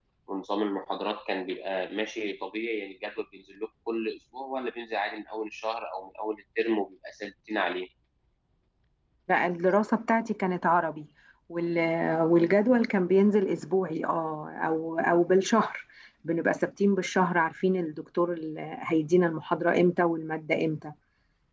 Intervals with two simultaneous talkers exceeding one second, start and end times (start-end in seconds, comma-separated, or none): none